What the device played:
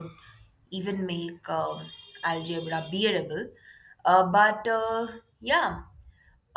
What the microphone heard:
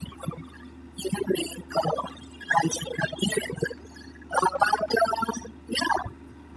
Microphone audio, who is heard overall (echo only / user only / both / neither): echo only